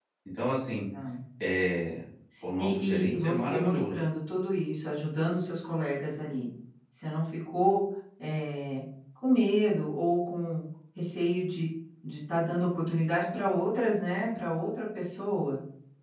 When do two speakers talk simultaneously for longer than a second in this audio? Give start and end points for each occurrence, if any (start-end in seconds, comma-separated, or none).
2.6-3.9